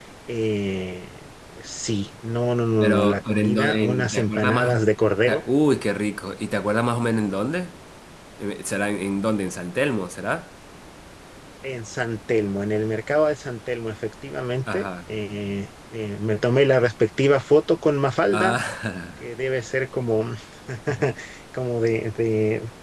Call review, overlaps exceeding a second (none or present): present